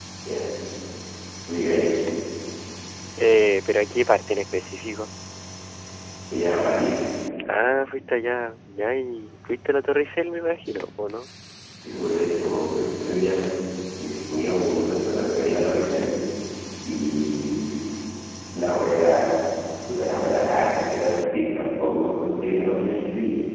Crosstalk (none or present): none